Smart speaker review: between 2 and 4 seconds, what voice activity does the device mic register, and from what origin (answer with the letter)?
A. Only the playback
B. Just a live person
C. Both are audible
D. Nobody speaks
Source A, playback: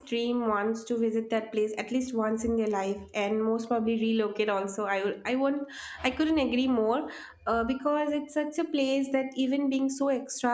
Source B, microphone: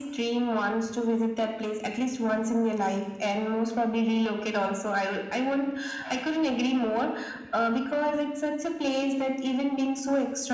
A